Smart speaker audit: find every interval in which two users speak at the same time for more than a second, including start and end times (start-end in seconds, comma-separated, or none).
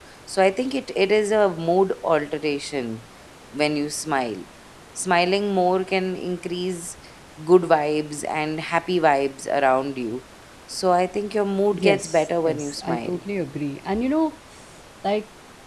11.7-13.2